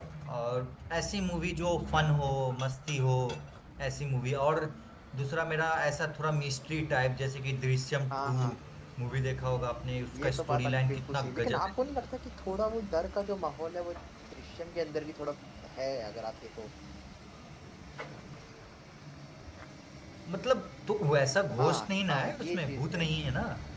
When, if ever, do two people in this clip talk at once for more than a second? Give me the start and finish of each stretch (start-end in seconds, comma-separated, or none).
10.2-11.7, 21.6-23.1